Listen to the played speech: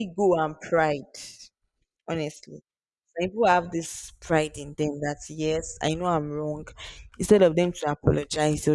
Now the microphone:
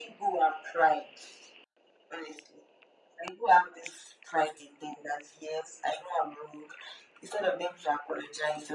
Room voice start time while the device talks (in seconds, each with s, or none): none